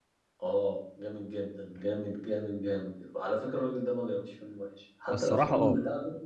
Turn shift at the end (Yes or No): No